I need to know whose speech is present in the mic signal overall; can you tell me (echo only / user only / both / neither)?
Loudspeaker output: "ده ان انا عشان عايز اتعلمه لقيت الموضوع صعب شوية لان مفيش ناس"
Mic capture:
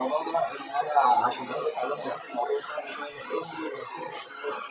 echo only